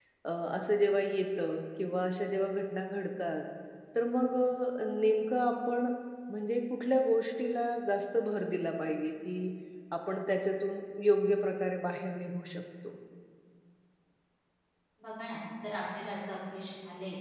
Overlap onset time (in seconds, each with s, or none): none